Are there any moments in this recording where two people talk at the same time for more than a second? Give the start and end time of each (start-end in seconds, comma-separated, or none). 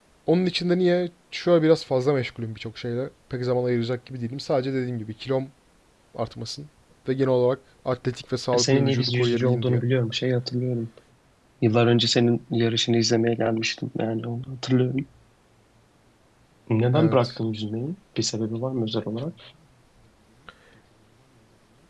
8.5-9.8